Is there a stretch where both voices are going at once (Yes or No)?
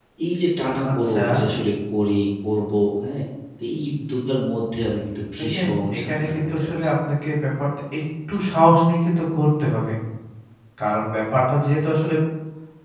Yes